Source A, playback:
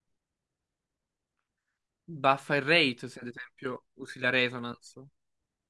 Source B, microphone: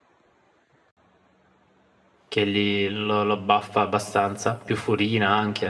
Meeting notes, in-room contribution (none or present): present